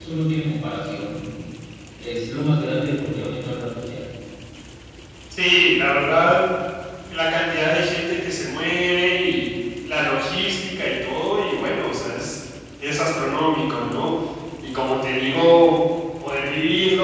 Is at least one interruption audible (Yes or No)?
No